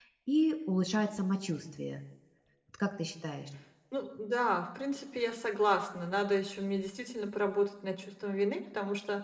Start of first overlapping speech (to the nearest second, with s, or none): none